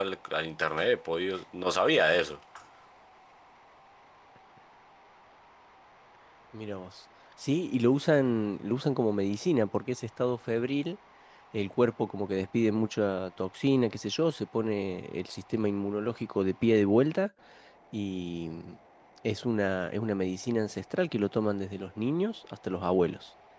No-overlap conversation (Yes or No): Yes